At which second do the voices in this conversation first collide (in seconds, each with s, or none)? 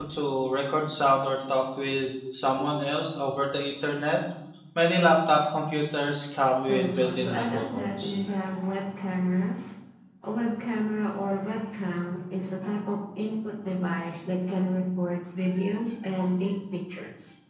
6.6 s